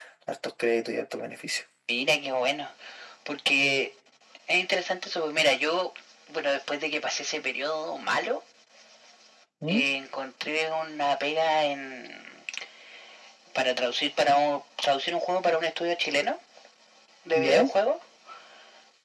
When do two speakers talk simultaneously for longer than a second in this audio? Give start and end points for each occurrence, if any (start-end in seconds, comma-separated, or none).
none